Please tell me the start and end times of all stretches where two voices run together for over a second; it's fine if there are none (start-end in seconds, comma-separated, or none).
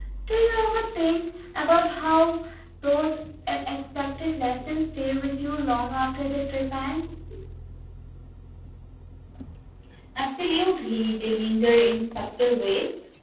none